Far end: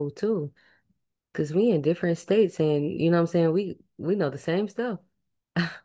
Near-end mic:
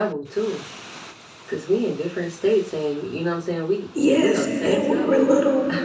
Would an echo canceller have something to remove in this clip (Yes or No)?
Yes